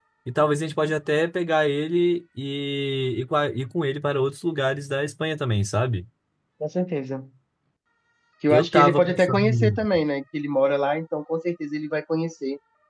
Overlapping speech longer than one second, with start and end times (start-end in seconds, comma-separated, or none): 8.5-9.8